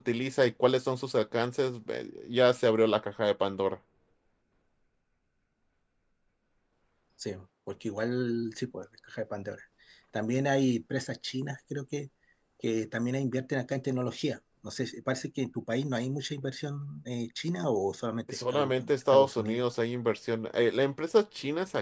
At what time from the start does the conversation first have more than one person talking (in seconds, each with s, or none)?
18.3 s